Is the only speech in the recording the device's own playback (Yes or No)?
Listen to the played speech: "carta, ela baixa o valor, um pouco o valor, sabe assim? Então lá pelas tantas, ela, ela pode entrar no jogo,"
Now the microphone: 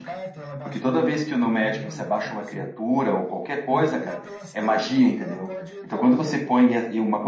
No